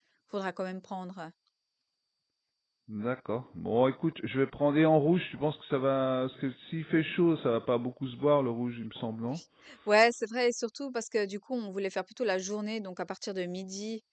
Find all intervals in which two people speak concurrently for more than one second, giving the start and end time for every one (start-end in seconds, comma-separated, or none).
none